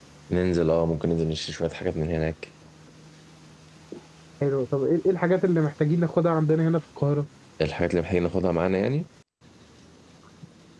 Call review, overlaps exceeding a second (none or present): none